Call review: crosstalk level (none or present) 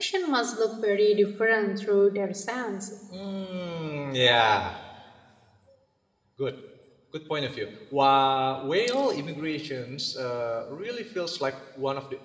none